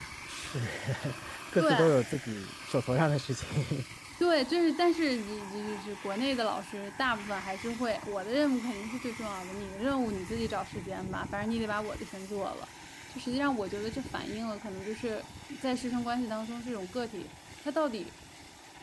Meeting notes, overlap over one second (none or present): none